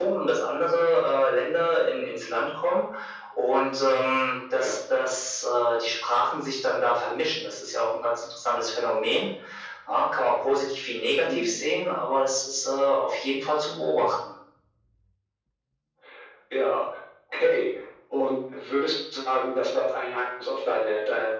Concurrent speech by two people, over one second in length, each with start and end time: none

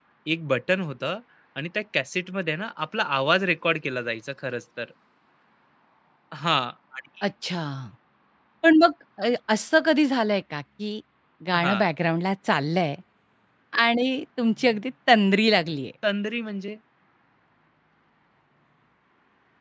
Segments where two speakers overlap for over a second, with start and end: none

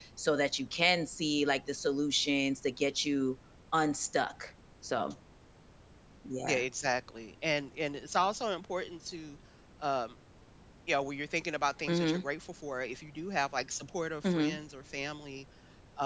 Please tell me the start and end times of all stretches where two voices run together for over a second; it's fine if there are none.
none

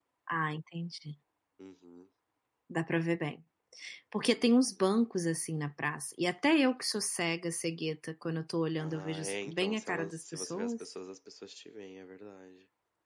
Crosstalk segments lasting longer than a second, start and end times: 8.8-10.7

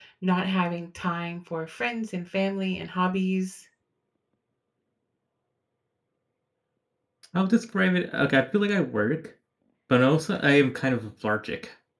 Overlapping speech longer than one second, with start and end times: none

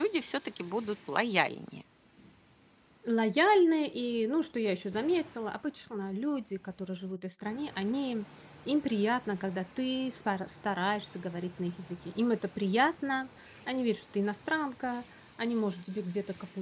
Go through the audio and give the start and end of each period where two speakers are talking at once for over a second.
none

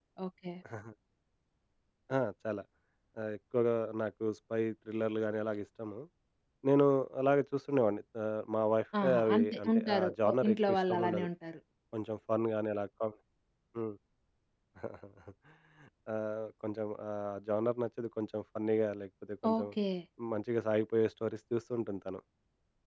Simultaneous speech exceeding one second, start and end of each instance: 9.0-11.3

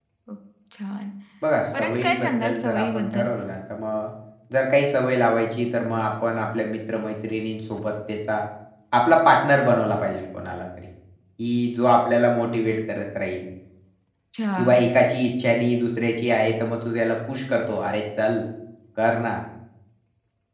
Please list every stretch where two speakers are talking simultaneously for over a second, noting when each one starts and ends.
1.7-3.3

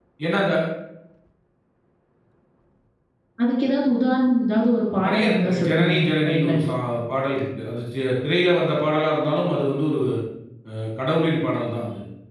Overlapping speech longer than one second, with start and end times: 5.0-6.6

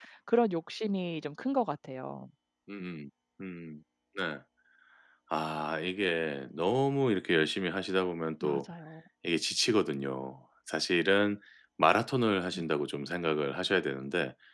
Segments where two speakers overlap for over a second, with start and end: none

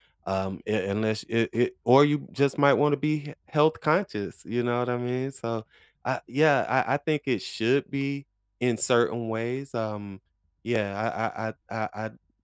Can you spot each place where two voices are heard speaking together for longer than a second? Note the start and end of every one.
none

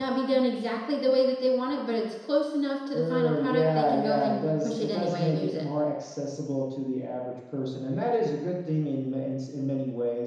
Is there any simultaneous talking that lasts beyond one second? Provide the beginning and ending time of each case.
2.9-5.7

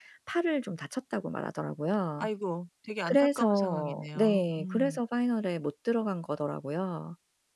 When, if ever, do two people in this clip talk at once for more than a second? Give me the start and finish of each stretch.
3.0-5.0

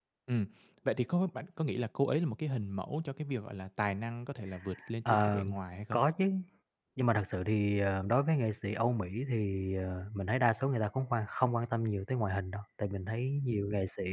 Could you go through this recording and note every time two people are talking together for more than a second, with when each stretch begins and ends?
none

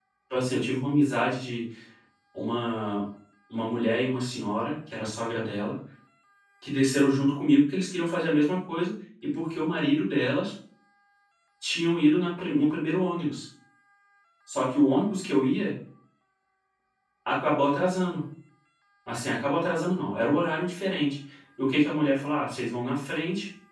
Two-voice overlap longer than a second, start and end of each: none

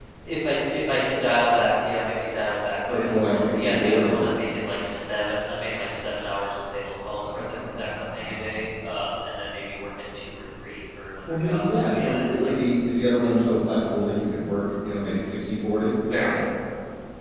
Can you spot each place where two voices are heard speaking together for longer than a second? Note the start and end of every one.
2.8-4.2, 7.2-8.6, 11.3-12.5

